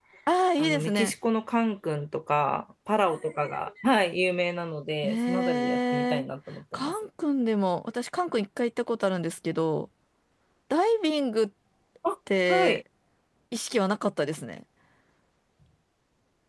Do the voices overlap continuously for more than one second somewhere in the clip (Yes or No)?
Yes